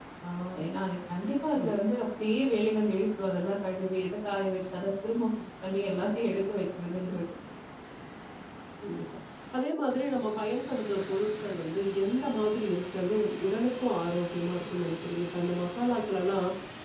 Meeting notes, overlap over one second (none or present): none